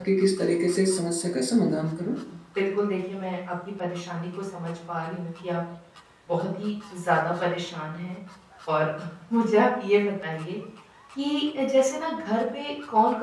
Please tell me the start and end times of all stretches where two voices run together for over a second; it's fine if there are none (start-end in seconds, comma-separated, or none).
none